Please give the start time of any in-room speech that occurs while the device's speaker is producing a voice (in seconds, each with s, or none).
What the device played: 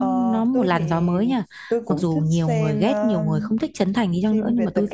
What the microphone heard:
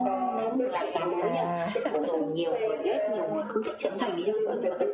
1.2 s